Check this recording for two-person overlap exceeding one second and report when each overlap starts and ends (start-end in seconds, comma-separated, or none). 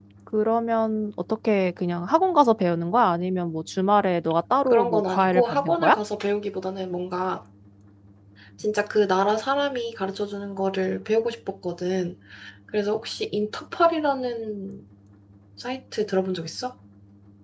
4.7-6.0